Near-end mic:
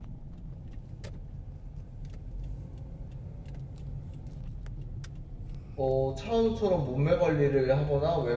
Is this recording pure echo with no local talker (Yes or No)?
No